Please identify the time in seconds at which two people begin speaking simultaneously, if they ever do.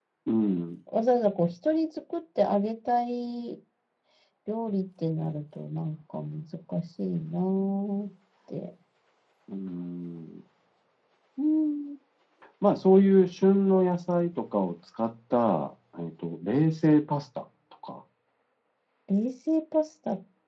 none

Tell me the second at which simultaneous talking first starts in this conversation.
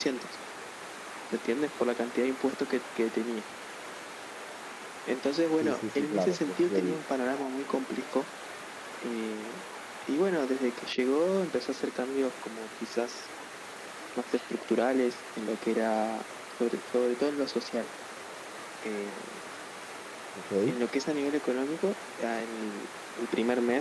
5.6 s

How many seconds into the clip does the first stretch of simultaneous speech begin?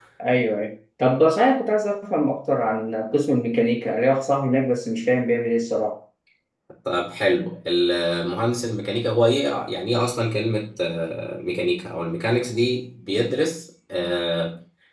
none

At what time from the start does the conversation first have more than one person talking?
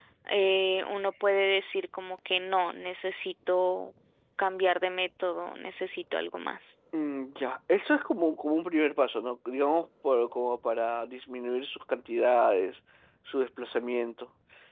none

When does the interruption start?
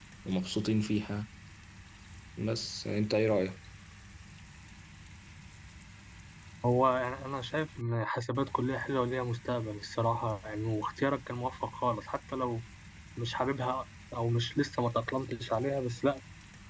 none

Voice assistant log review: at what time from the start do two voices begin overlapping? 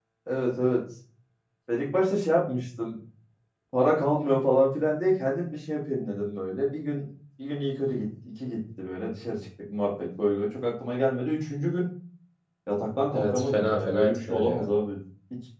13.1 s

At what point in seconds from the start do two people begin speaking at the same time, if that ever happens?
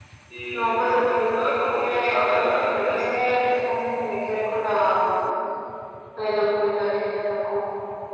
0.5 s

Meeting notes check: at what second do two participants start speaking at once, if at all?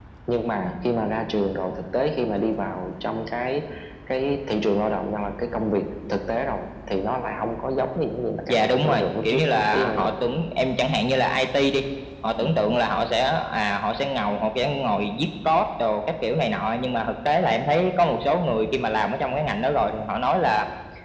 8.5 s

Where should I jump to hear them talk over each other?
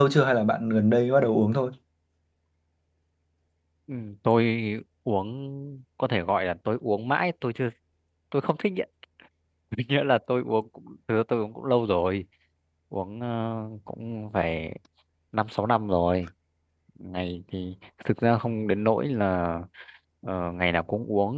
none

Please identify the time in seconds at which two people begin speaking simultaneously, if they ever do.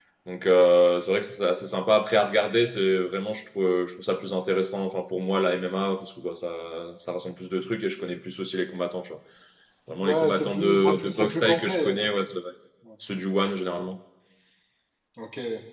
10.0 s

